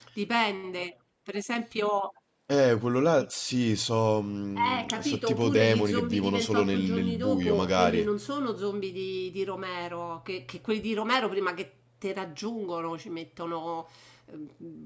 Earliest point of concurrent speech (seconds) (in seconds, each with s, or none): 4.6 s